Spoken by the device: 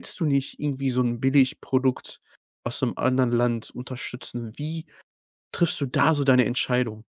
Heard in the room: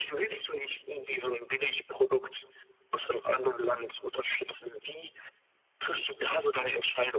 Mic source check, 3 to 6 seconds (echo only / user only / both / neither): echo only